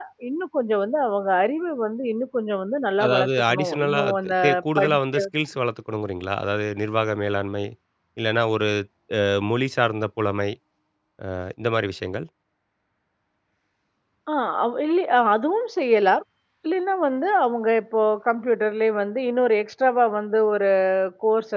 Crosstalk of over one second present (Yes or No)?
Yes